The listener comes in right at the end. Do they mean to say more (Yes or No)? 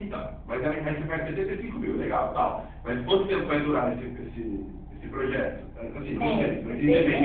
Yes